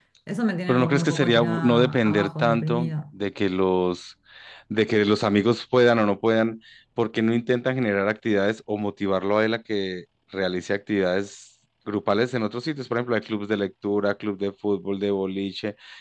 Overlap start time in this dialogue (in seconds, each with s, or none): 0.7 s